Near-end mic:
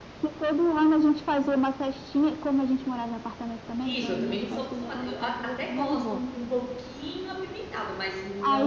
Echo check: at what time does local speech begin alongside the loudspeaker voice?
3.8 s

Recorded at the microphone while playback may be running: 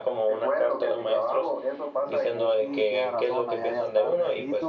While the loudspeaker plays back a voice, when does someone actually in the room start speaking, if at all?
2.6 s

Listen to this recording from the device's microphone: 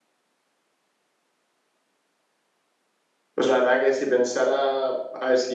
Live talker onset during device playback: 3.3 s

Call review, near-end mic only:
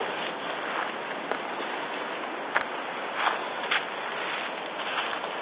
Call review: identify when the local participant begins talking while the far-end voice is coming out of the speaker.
none

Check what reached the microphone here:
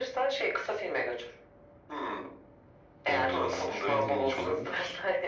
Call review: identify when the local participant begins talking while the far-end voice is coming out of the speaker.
3.1 s

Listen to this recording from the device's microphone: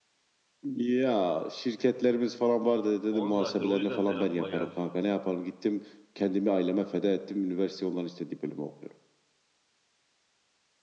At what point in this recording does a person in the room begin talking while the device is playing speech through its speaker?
3.1 s

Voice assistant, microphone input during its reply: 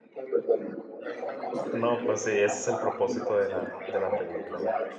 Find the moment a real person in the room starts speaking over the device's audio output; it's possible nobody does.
1.7 s

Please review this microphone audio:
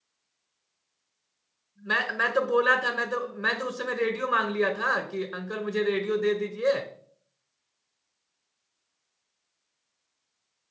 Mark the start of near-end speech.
1.9 s

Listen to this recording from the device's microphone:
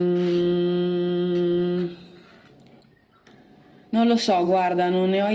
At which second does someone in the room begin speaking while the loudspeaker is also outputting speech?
none

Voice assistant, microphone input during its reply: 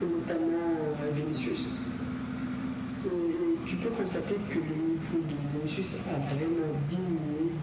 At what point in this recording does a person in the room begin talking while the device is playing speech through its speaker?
none

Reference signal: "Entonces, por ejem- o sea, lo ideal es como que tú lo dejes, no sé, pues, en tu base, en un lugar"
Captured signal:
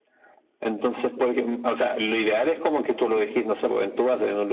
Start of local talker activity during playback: none

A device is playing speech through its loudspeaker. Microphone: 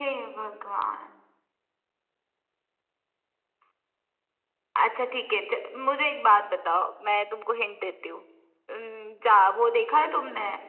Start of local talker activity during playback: none

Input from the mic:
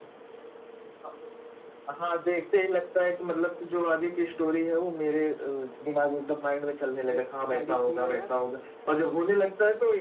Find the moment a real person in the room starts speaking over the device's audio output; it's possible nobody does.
7.0 s

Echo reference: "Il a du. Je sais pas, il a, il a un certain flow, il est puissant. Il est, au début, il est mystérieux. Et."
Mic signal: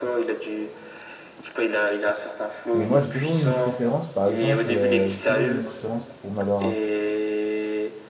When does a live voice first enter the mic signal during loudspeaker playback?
2.7 s

